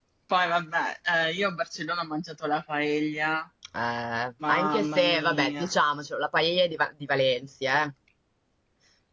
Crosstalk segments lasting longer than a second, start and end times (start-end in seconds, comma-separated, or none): 4.5-5.7